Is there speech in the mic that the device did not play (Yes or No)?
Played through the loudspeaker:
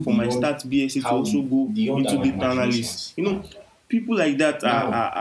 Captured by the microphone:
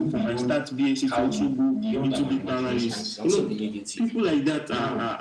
Yes